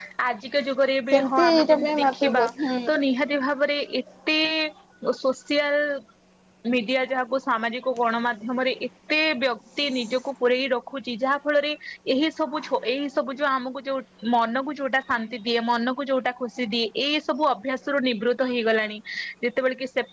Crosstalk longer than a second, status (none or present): present